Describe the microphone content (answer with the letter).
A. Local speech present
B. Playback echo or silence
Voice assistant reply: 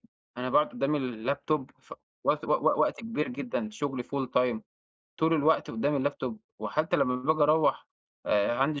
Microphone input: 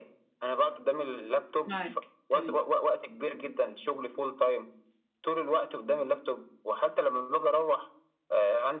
A